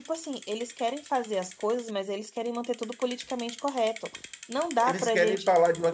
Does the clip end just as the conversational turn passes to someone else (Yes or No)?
Yes